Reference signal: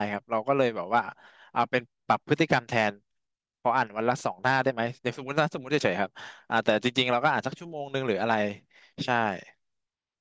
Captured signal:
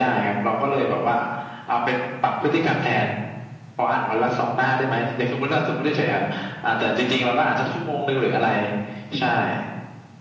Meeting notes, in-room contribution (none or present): none